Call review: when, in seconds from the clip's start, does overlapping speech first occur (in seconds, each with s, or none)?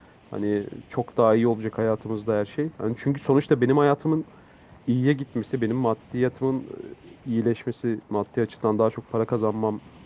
none